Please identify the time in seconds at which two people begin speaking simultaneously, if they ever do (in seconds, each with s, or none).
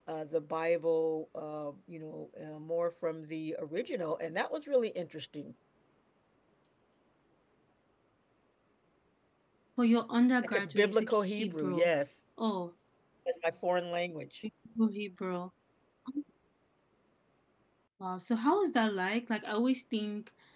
10.4 s